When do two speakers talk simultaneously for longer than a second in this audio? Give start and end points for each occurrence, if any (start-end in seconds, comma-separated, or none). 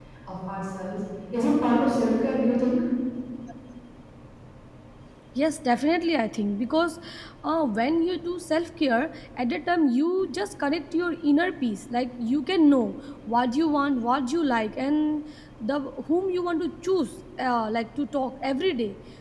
none